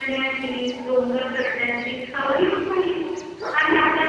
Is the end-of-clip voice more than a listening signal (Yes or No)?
No